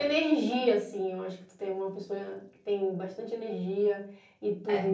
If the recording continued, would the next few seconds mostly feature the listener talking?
No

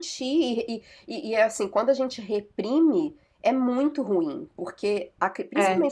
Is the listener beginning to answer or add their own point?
No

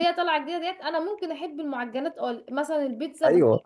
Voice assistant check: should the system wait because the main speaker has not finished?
Yes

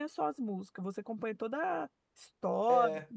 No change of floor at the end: No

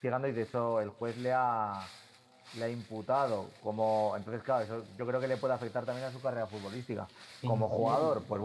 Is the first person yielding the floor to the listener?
No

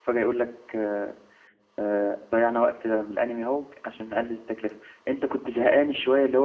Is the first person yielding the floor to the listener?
No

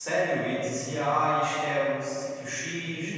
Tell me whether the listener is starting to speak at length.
Yes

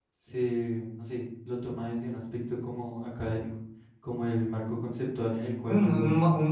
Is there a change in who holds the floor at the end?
Yes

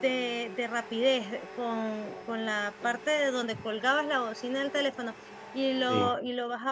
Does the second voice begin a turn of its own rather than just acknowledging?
No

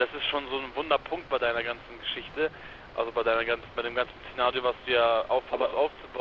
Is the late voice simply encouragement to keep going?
Yes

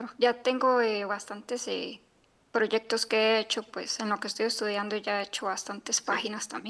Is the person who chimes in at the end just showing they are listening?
Yes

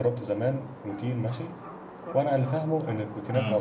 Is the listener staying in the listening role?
Yes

